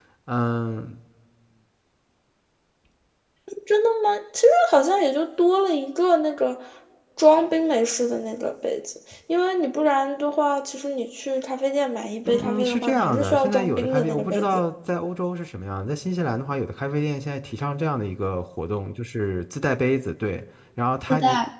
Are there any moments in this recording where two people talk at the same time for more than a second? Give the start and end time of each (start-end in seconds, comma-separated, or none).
12.2-14.6